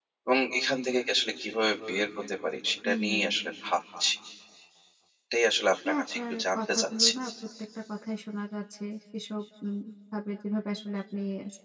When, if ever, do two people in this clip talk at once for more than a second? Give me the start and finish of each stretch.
5.9-7.1

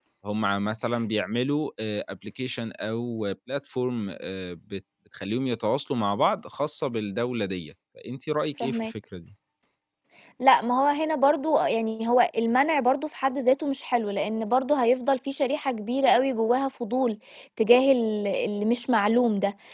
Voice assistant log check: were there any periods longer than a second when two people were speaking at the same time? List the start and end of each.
none

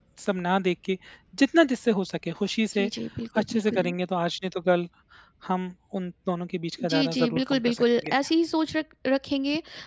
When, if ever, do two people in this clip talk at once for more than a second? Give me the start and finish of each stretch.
6.9-8.1

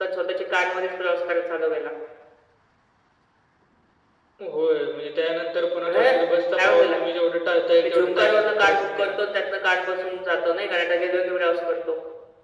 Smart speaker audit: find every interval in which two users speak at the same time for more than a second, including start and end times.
7.8-9.1

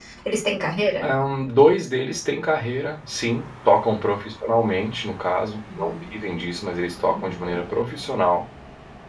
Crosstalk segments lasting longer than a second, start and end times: none

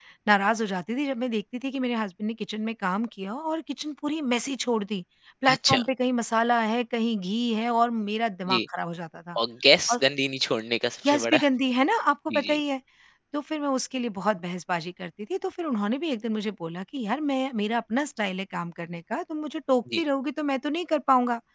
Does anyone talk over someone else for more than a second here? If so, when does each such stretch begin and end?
none

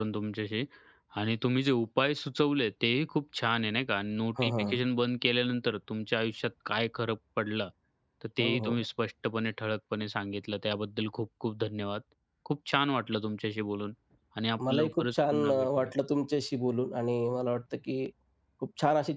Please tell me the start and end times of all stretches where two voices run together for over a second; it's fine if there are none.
14.7-15.9

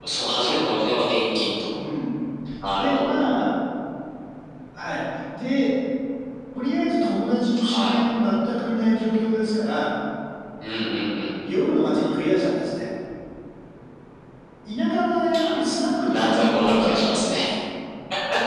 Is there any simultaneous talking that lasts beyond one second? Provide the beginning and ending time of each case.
16.1-17.4

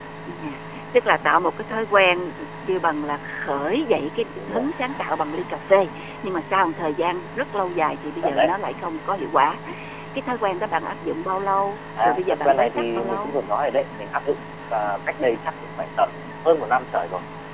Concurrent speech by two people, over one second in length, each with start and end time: 12.0-13.4

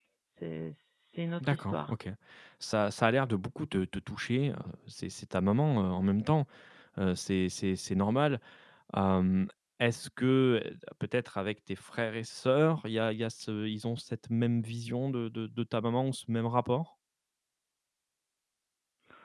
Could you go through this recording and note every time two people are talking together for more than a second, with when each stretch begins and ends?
none

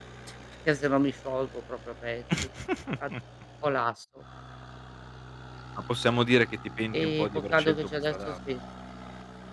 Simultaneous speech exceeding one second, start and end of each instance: 6.9-8.3

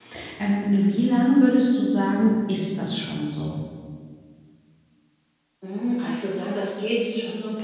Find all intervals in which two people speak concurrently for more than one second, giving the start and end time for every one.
none

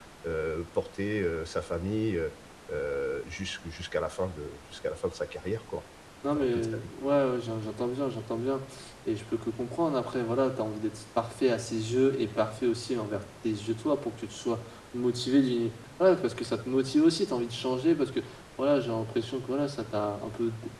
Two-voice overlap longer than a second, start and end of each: none

